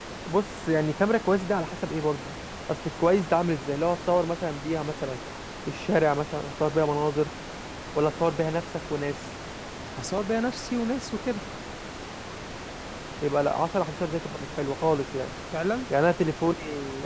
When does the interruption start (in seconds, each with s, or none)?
none